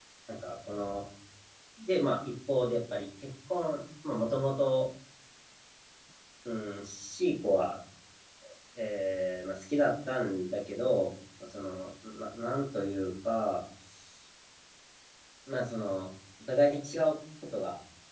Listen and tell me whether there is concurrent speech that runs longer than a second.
No

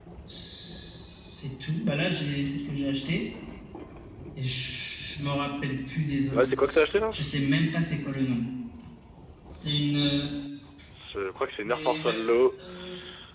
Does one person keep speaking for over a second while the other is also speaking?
No

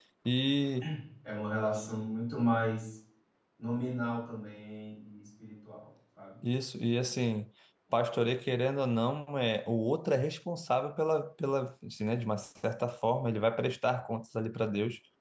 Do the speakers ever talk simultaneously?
No

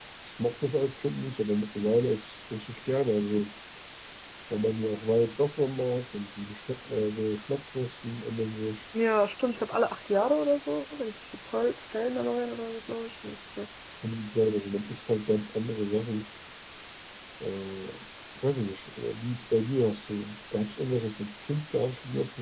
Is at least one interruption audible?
No

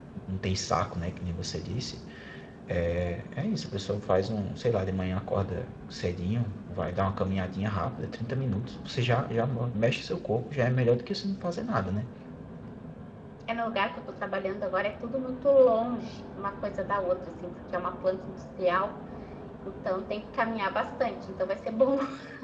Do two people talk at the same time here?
No

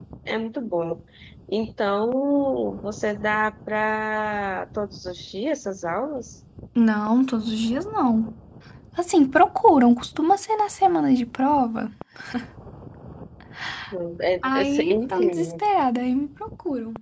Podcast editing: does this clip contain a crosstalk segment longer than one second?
Yes, from 14.4 s

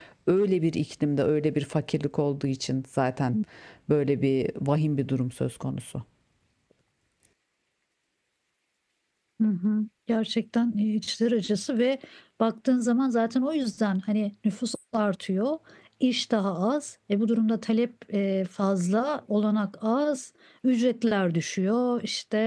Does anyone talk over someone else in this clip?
No

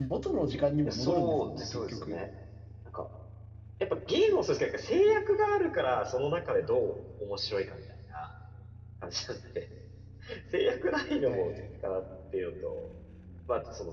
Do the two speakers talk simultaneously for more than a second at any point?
Yes, from 0.9 s

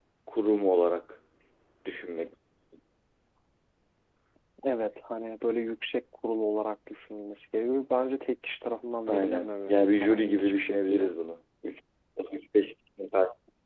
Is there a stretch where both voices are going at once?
Yes, from 9.1 s

